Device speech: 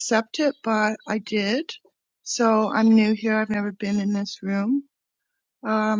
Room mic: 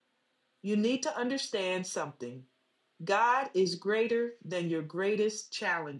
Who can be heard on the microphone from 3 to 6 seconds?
user only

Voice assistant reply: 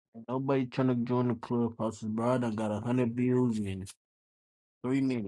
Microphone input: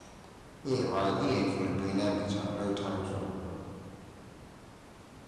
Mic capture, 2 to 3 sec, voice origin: user only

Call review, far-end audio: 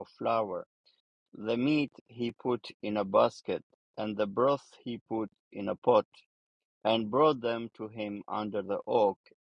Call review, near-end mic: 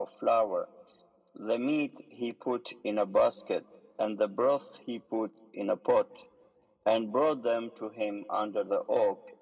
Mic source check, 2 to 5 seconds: echo only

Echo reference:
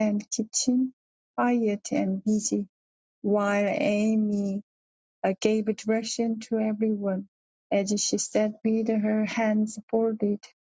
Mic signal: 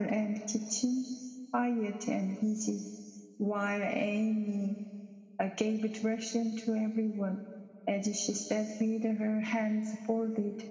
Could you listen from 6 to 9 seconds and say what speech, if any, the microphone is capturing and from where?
echo only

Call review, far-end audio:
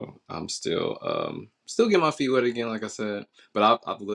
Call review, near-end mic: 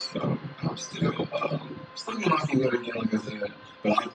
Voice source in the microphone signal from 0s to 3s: echo only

